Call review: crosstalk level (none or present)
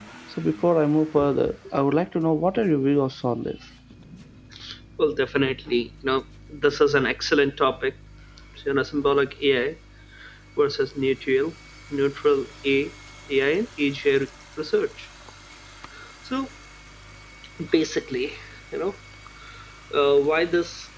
none